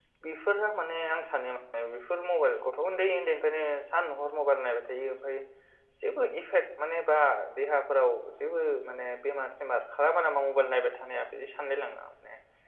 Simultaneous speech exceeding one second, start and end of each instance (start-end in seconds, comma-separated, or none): none